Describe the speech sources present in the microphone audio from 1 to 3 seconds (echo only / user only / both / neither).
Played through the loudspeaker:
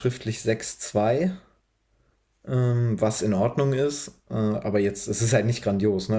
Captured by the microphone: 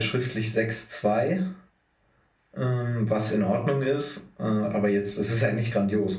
echo only